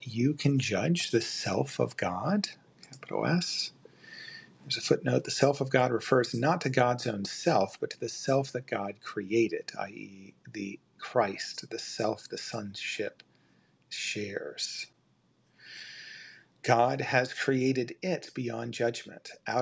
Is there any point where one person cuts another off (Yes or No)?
No